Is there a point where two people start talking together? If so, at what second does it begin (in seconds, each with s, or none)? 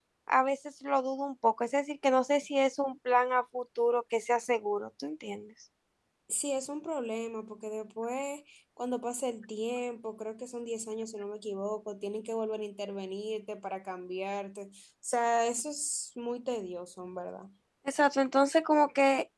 none